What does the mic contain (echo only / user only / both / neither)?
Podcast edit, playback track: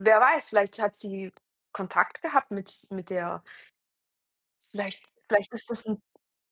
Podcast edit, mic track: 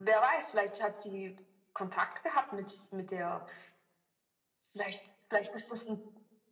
echo only